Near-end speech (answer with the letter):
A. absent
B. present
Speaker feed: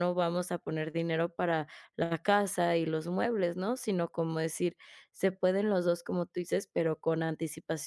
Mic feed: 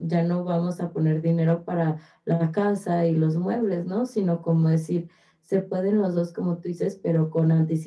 A